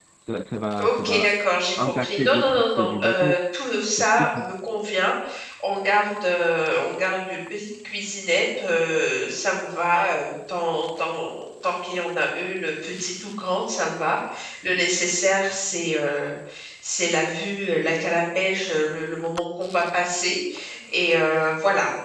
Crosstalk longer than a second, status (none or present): present